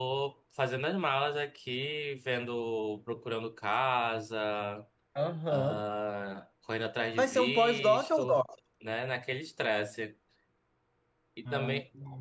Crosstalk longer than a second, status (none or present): present